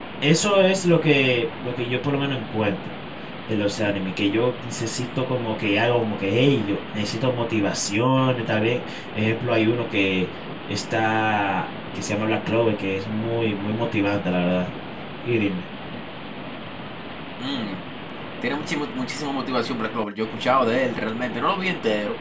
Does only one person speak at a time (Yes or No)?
Yes